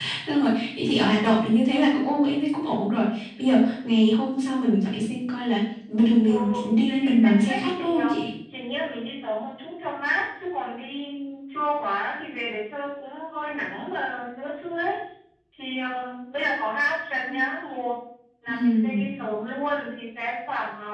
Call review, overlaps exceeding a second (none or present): present